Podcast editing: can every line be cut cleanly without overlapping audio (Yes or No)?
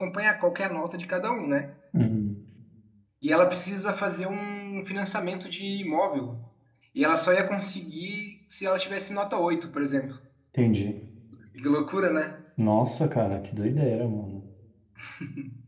Yes